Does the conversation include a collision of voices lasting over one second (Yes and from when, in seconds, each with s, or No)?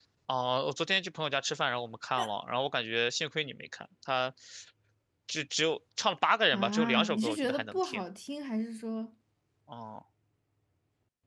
Yes, from 6.5 s